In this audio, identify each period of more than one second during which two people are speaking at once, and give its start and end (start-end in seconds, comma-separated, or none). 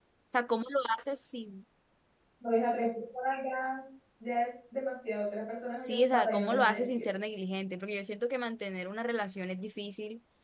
5.8-7.1